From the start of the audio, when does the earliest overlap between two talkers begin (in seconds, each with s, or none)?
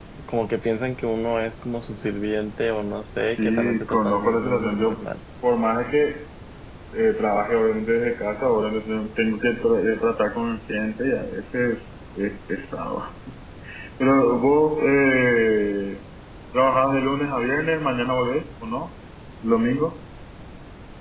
3.4 s